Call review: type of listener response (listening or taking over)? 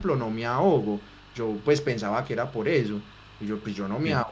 listening